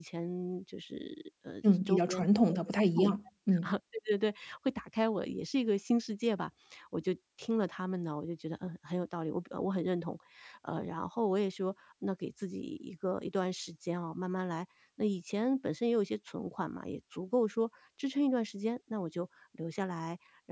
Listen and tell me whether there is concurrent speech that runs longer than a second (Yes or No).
Yes